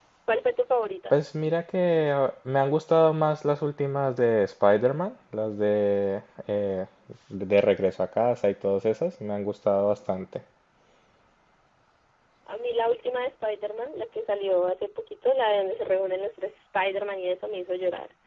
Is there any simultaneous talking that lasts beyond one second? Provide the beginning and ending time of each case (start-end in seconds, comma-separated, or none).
none